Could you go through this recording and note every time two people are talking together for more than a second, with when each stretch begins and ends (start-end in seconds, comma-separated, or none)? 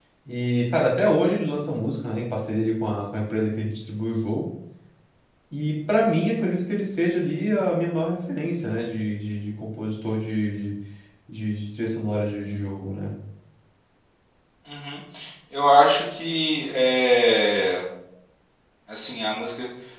none